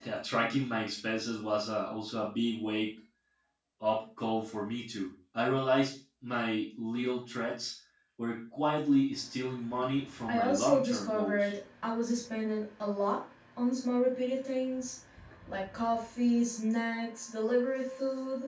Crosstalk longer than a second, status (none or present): present